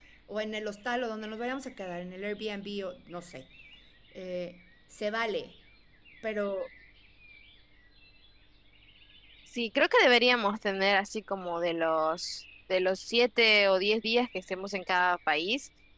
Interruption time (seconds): none

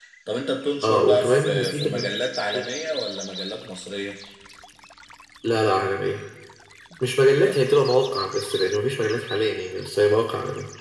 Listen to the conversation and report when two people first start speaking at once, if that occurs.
0.8 s

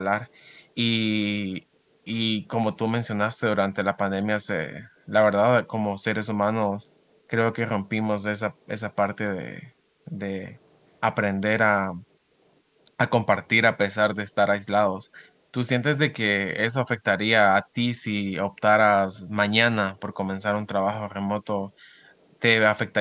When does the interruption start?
none

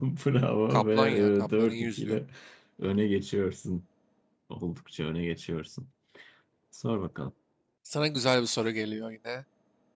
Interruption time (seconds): 0.7 s

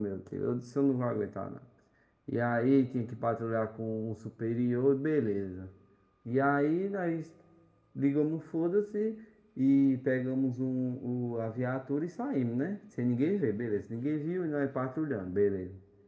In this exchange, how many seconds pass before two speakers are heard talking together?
none

